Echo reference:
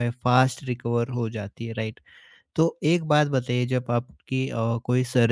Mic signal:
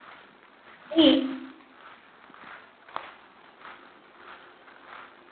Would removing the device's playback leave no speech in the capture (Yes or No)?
No